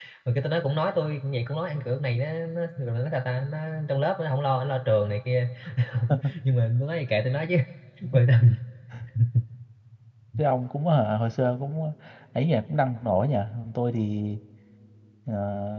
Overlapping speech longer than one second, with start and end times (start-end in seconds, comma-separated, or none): none